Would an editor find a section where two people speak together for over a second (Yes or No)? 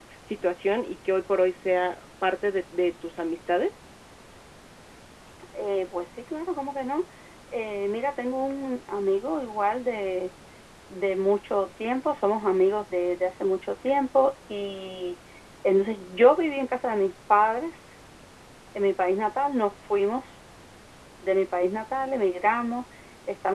No